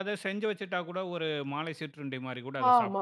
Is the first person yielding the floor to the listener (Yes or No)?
Yes